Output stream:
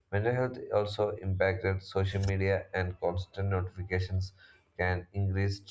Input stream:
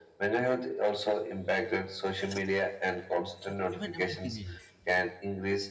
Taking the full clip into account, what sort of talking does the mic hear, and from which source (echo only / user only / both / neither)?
both